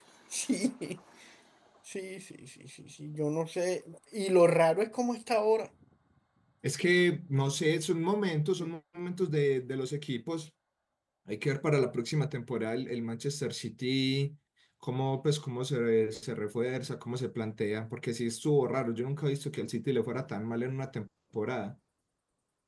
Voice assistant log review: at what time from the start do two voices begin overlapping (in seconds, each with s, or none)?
none